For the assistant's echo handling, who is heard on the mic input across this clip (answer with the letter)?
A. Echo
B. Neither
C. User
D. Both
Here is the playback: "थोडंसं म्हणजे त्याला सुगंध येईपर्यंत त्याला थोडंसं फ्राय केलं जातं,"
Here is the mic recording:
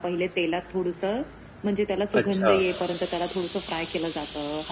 D